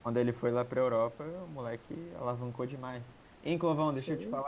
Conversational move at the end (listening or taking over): listening